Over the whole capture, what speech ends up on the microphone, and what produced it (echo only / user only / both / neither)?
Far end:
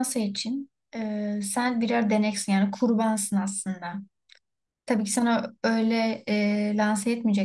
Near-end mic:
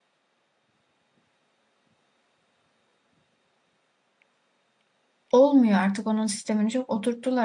user only